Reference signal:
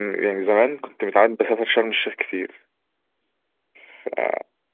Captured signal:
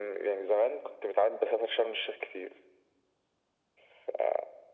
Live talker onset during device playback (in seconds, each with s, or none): none